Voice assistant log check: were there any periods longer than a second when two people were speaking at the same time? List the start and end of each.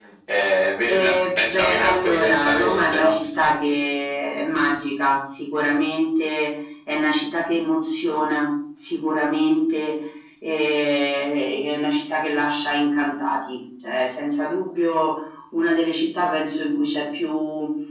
0.9-3.2

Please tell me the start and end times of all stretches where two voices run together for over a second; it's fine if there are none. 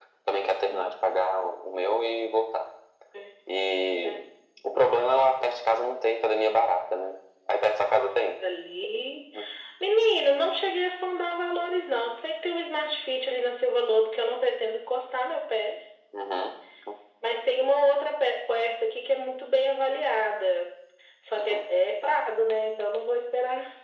none

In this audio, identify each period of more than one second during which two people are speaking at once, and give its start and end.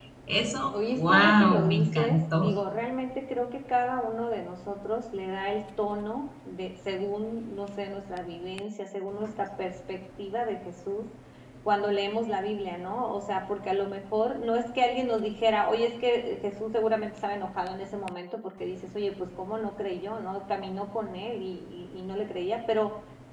0.9-2.5

